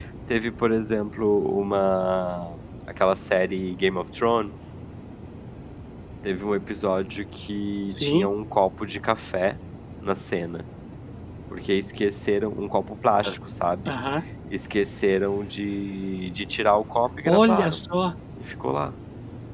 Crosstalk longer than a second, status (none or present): none